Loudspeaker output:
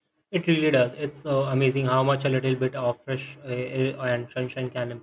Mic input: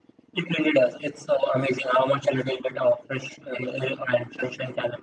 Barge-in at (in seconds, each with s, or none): none